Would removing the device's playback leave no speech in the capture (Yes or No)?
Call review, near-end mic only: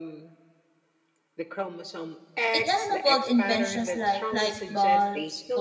No